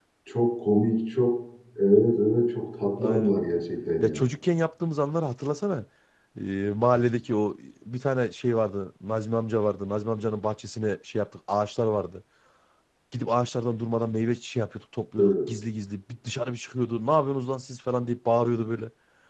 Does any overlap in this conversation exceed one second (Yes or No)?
No